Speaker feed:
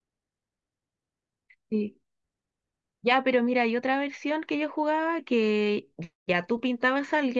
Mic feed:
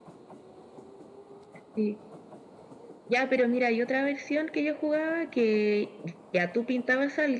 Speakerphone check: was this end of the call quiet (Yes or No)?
Yes